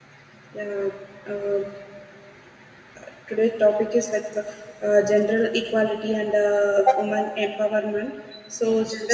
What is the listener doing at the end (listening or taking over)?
listening